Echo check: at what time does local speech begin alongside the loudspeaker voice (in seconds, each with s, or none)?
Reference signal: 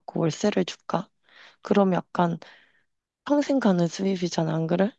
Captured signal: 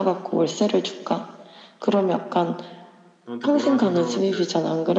3.2 s